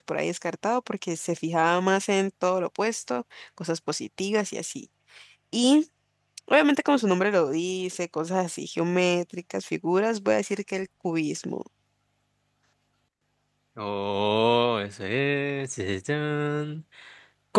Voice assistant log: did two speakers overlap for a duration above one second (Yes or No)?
No